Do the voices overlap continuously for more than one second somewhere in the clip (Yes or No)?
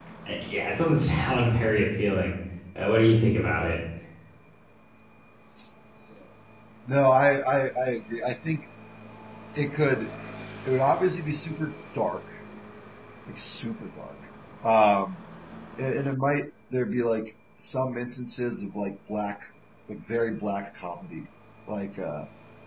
No